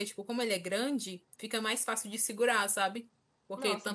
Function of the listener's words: listening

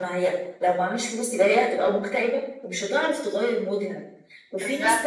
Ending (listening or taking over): listening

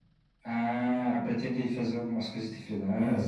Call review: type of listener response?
taking over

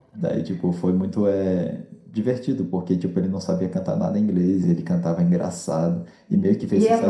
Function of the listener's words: taking over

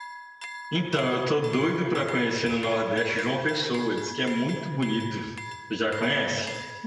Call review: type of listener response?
taking over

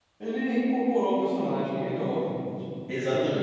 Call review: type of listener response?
listening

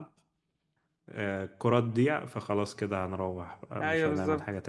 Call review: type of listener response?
taking over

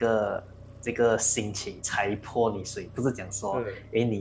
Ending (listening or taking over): listening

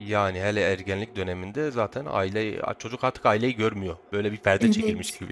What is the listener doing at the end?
taking over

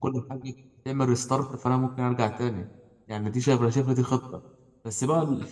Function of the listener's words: listening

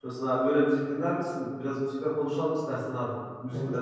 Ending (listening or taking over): taking over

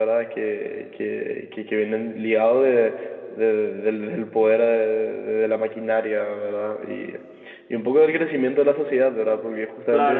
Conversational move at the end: taking over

